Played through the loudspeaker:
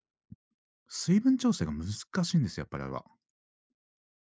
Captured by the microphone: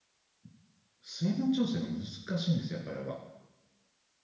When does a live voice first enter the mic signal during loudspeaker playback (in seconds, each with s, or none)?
none